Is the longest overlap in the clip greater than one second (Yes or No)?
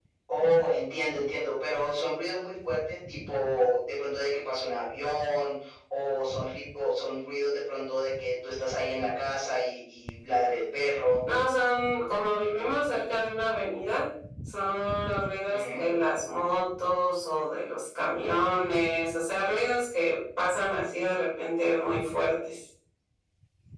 No